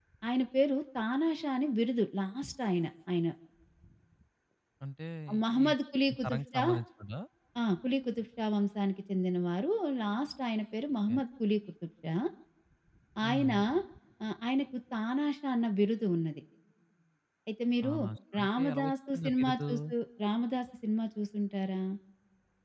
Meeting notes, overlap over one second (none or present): present